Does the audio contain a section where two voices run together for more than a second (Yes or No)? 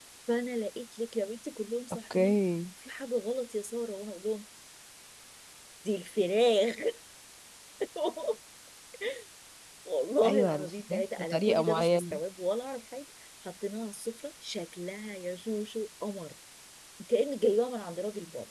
Yes